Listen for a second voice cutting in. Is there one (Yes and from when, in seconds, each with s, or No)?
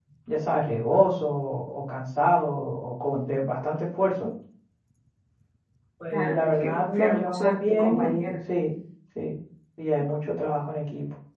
Yes, from 6.1 s